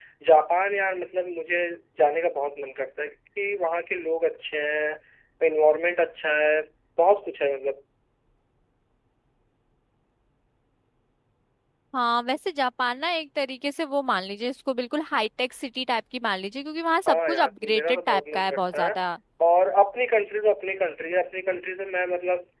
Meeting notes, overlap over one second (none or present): present